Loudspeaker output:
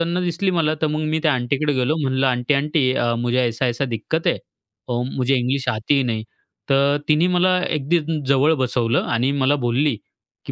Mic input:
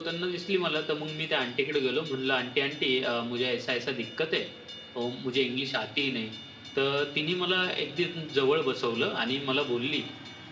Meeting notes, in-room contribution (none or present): none